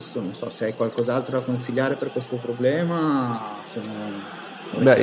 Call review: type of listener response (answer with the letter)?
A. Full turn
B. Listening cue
A